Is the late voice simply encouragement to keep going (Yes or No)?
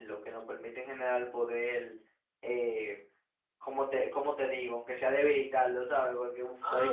No